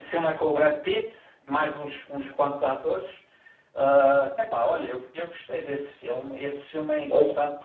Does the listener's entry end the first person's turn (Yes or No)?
No